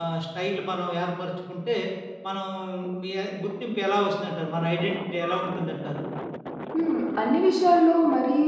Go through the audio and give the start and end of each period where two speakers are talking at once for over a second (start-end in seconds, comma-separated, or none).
none